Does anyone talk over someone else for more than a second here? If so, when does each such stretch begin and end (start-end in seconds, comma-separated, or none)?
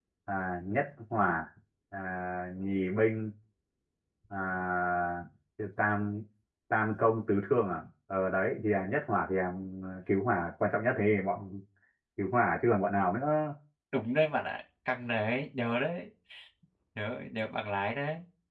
none